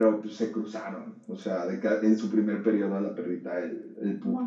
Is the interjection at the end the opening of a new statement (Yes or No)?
No